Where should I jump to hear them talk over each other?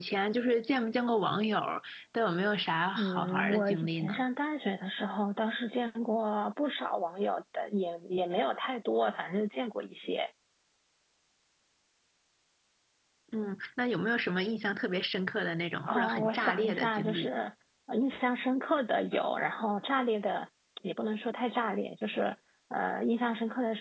3.0 s

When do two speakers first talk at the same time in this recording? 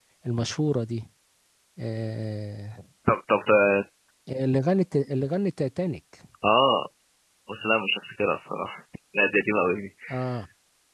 none

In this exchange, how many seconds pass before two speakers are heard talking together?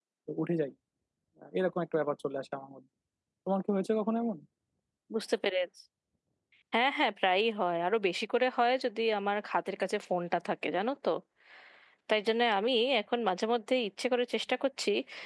none

